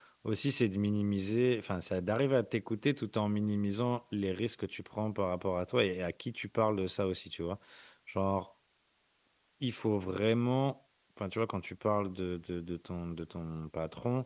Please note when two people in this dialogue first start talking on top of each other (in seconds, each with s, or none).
none